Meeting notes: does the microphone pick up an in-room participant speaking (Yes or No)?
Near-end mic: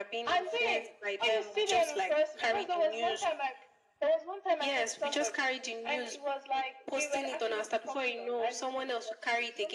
No